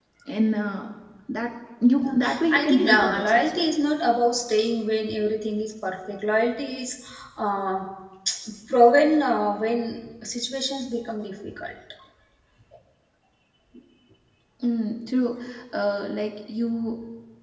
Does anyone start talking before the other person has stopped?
Yes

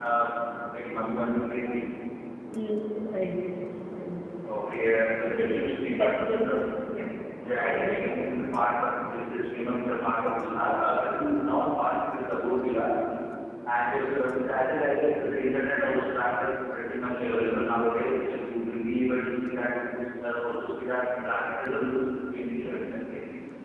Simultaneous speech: Yes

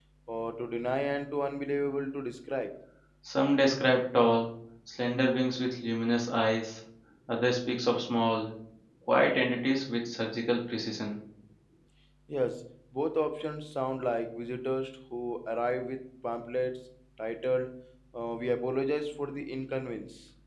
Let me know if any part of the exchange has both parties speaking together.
No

